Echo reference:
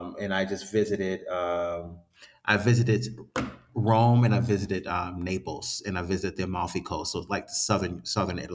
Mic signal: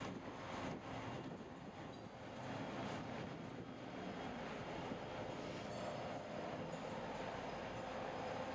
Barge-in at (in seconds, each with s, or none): none